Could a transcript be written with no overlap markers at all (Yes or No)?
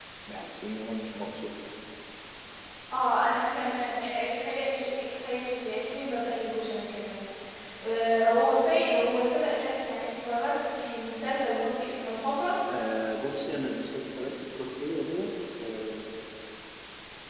Yes